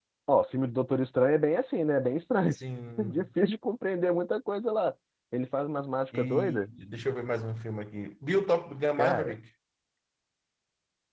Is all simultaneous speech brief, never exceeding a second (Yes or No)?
Yes